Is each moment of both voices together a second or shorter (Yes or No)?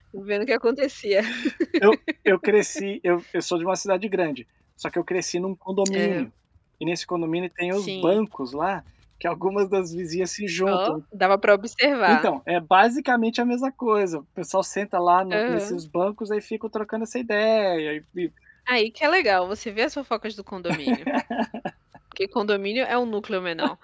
Yes